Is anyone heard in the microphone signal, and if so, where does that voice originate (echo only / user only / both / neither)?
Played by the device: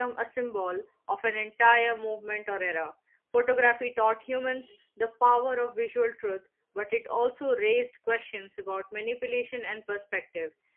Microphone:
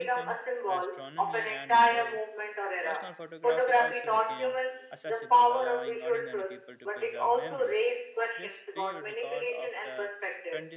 both